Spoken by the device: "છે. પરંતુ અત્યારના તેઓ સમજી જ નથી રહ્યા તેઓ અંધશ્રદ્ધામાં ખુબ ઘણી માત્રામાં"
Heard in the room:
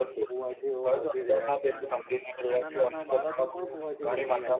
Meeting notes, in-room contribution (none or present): present